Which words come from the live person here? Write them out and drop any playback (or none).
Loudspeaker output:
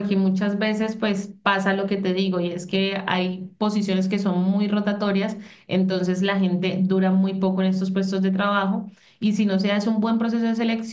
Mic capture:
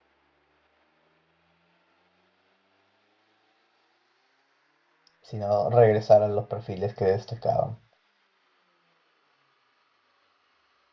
sino regresar a los perfiles que destacaban.